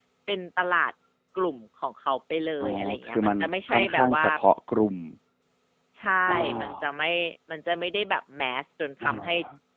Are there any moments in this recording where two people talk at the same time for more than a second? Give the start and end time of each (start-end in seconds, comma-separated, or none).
2.6-4.2